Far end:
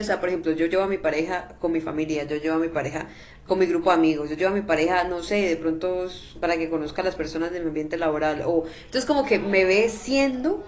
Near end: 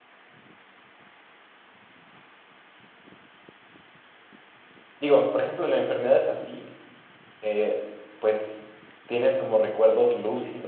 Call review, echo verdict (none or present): none